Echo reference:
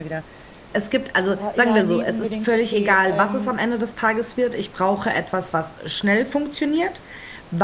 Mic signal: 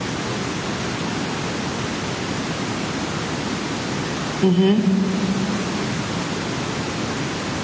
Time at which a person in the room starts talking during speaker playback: 4.4 s

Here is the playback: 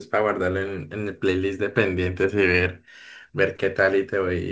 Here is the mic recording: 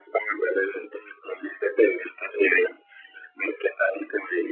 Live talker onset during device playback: none

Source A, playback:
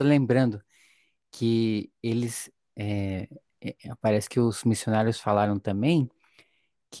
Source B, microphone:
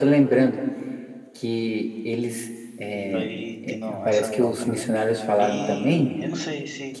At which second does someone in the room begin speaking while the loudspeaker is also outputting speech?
2.9 s

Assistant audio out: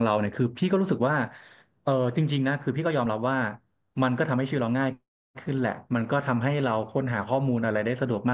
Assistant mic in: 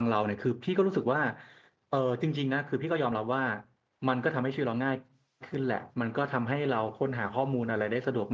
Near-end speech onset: none

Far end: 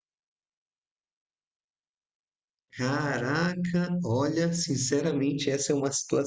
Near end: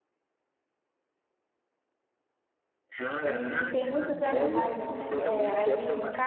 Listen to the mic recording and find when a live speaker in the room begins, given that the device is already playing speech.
3.2 s

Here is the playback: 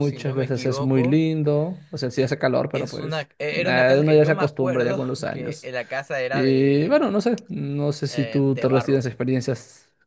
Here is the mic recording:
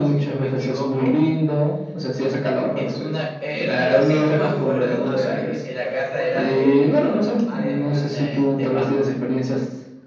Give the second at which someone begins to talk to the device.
3.8 s

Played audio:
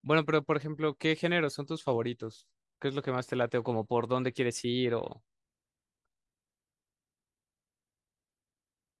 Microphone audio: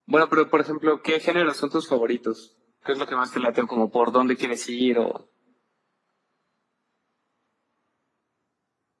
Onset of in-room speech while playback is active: none

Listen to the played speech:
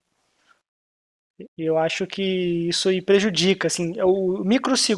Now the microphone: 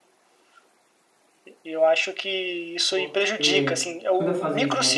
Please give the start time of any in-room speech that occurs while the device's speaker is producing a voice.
2.9 s

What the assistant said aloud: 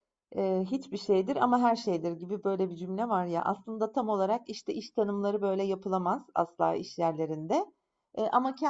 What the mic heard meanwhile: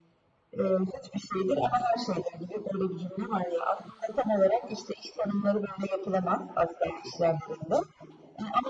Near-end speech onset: none

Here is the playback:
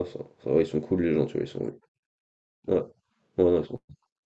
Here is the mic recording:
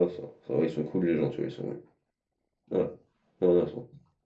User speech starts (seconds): none

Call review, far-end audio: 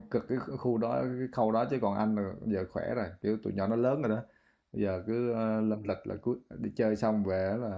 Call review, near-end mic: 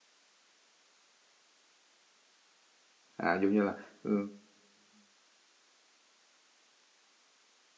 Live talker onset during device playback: 3.2 s

